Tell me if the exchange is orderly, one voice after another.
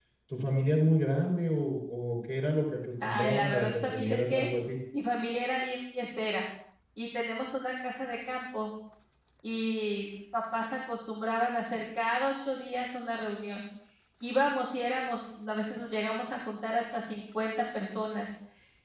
No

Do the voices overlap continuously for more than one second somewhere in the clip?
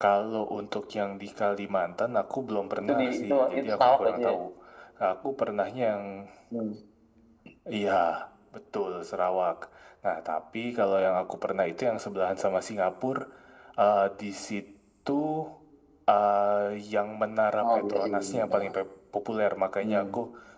Yes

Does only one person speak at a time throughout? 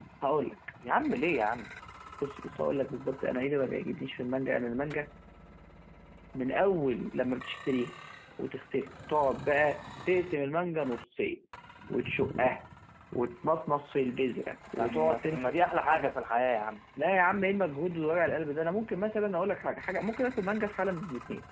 No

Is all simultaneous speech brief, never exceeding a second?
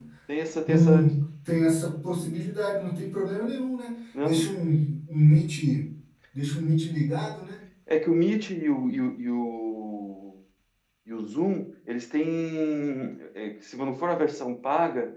Yes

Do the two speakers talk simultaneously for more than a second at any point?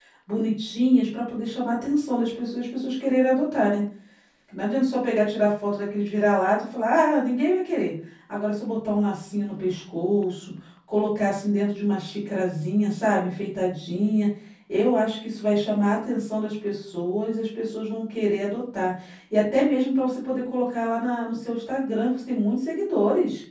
No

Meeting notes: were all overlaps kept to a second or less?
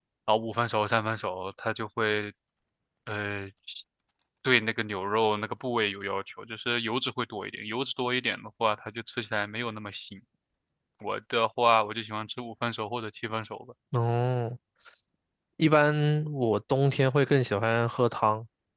Yes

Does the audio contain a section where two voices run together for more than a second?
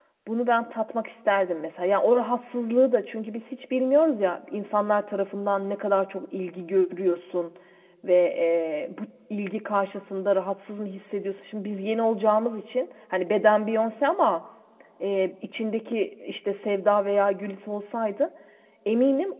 No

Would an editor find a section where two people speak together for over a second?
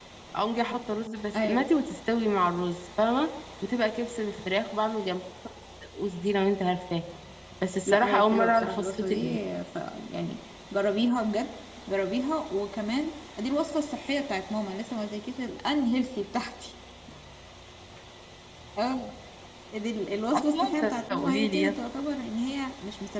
Yes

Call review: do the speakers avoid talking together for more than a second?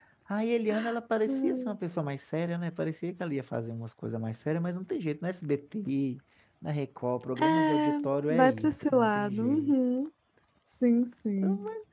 No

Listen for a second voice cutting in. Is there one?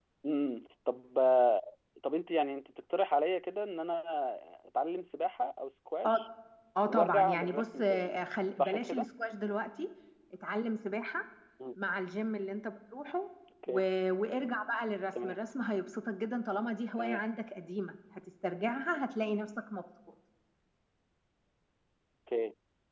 Yes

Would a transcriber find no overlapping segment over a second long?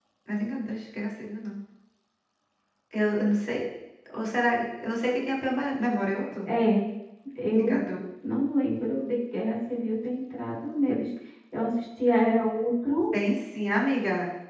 Yes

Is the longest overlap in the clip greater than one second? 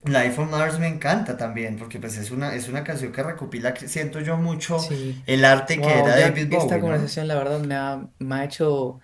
Yes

